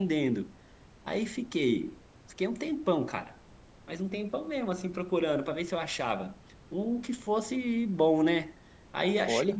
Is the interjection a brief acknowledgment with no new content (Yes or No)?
Yes